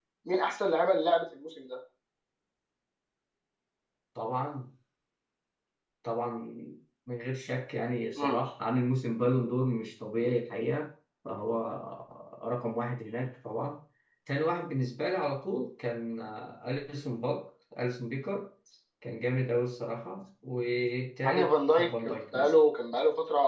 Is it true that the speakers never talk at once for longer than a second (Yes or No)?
No